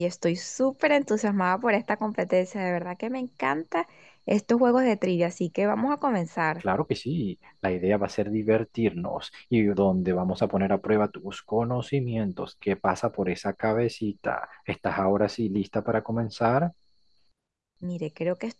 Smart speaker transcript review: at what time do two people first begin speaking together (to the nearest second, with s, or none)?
none